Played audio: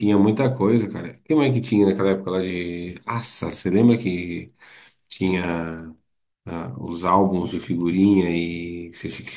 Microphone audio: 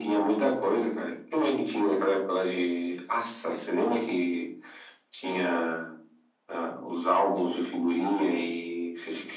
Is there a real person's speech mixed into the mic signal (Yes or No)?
No